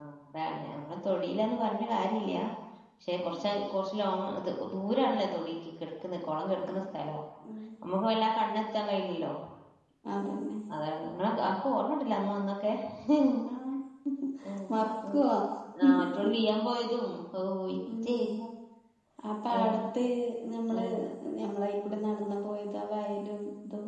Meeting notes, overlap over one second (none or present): none